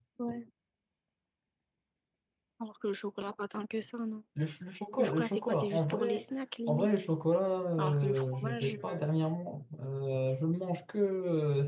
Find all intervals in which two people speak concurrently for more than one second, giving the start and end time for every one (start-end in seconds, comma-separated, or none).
5.0-6.2, 7.8-9.1